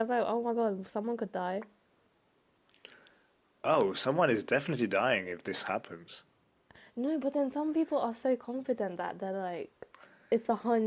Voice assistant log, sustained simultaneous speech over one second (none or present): none